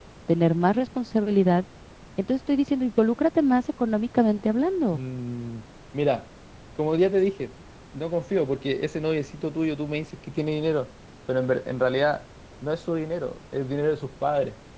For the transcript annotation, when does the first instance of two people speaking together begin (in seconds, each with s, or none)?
none